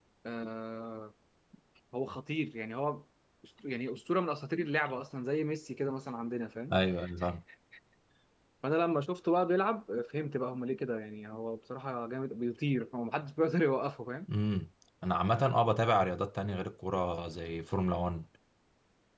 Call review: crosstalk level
none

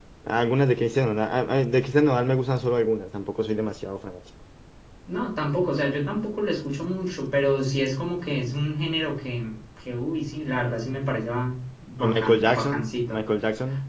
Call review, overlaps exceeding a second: present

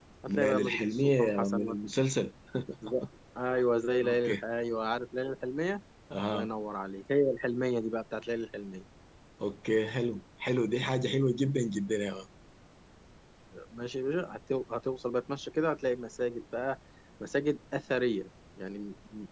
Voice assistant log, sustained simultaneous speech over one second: present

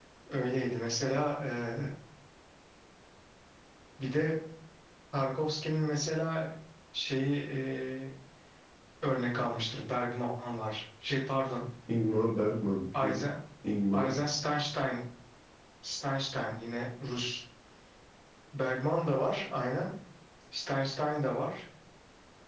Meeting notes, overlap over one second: none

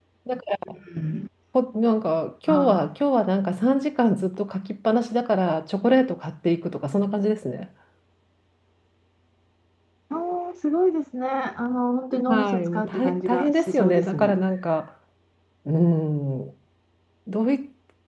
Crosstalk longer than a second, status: present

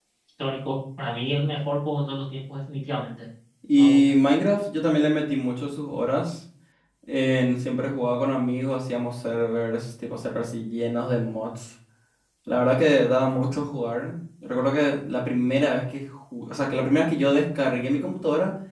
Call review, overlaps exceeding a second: none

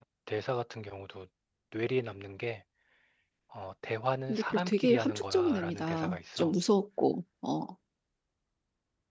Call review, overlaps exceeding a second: present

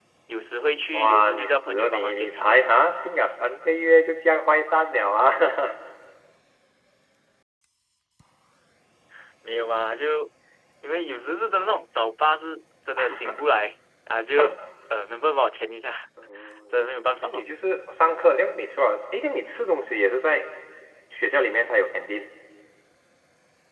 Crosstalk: present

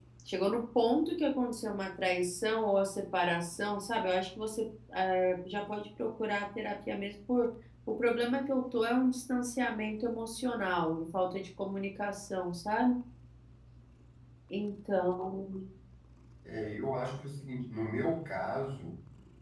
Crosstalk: none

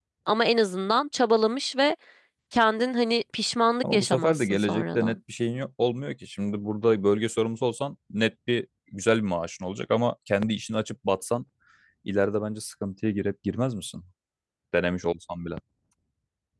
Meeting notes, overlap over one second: present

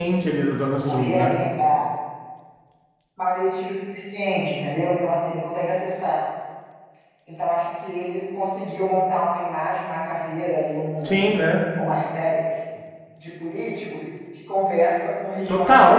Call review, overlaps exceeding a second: none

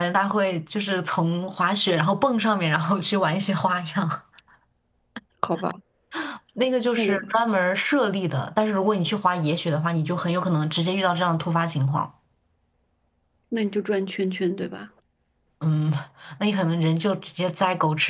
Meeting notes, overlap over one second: none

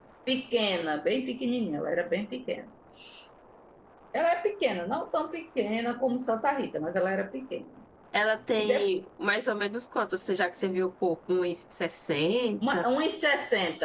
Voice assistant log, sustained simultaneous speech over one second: none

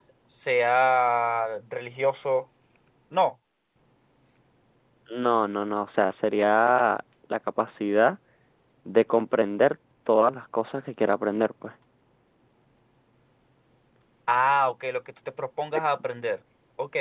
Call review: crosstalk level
none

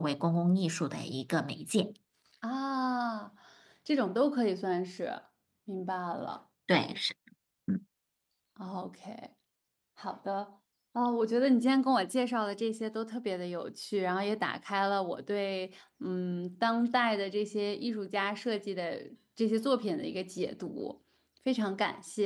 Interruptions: none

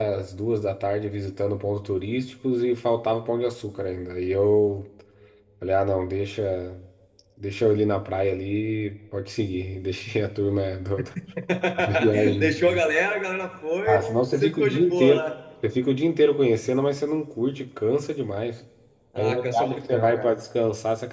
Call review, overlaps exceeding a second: present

